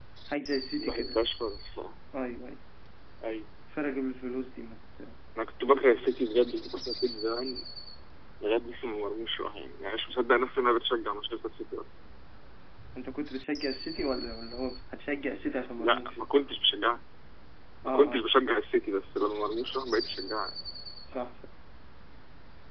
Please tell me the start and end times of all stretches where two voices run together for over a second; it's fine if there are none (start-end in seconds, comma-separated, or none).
none